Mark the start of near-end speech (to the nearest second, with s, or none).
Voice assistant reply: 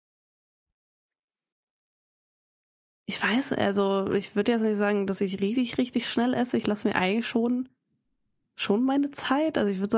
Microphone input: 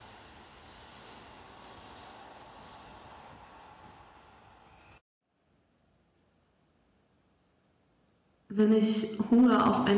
8 s